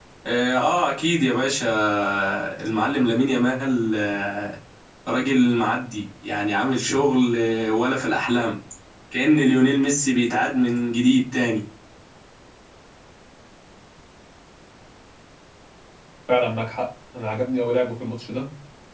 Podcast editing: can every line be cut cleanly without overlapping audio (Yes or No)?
Yes